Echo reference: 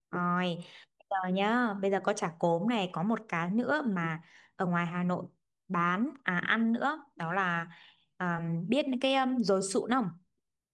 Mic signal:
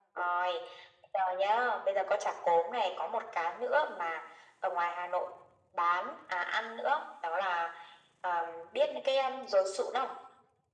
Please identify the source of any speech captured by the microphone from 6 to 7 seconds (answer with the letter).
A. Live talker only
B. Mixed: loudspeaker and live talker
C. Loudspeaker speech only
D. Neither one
C